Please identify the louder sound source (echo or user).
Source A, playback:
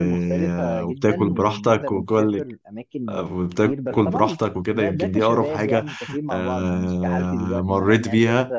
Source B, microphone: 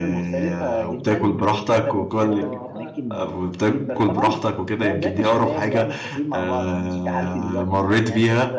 echo